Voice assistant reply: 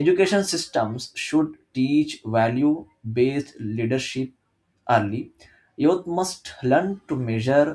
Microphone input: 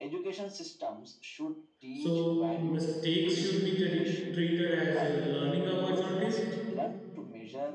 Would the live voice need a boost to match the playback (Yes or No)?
No